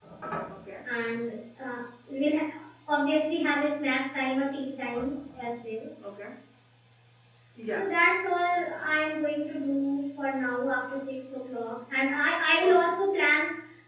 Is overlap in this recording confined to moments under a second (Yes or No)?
Yes